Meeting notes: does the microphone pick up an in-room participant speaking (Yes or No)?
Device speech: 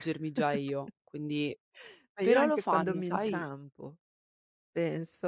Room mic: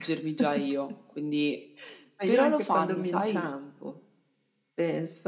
No